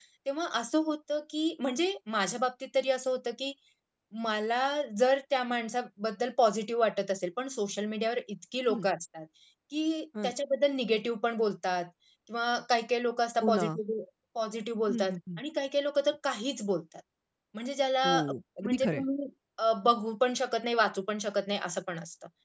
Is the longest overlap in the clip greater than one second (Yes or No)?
No